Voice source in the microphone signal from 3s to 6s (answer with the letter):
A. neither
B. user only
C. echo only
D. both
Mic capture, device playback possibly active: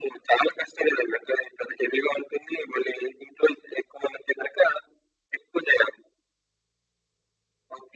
C